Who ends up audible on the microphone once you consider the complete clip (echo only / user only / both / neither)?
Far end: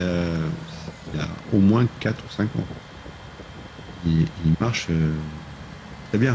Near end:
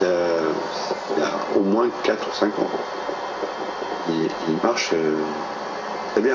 echo only